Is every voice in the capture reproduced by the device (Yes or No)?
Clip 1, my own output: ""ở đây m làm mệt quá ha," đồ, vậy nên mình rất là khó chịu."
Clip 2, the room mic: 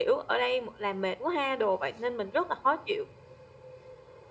Yes